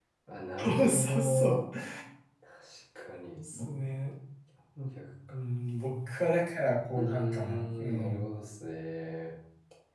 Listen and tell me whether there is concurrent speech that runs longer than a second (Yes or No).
Yes